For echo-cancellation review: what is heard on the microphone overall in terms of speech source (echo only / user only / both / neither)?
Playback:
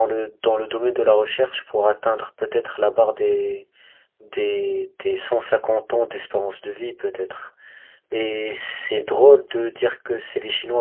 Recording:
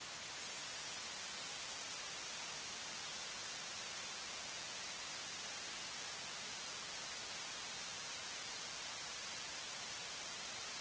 neither